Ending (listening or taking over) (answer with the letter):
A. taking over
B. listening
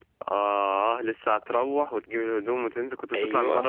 A